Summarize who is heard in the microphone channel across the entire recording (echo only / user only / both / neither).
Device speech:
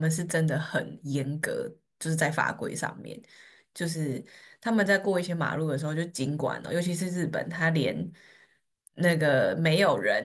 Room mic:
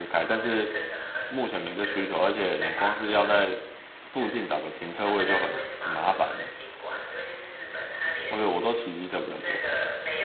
both